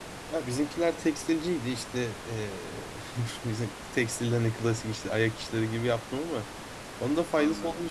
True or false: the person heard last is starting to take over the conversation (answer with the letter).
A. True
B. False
B